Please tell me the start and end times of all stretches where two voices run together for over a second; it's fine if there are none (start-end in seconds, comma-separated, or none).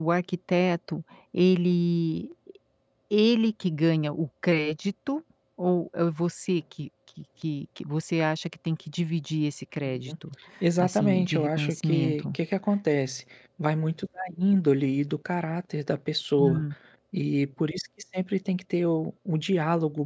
10.8-12.2